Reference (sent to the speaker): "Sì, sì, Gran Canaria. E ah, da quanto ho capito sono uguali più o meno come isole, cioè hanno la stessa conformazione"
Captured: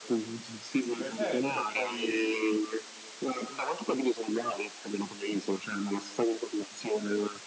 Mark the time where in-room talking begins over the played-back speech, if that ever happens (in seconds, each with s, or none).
0.9 s